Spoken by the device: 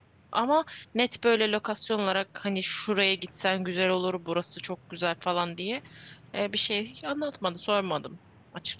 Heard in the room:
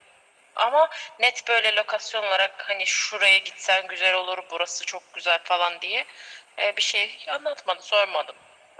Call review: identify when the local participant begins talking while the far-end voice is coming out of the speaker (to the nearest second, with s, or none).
none